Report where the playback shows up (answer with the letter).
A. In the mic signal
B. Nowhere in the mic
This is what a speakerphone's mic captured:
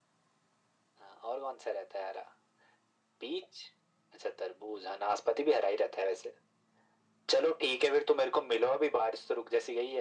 A